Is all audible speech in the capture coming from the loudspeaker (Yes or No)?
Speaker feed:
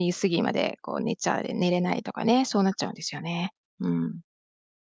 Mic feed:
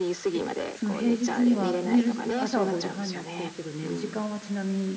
No